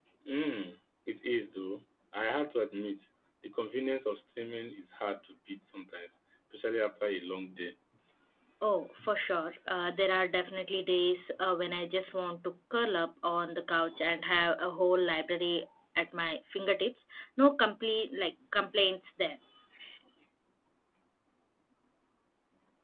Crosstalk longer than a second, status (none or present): none